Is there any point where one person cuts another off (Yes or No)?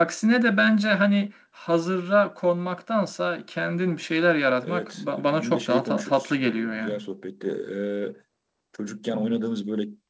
Yes